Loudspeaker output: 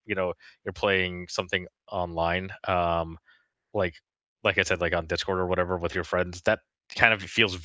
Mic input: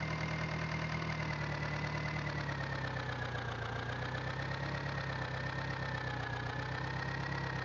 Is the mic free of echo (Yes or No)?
Yes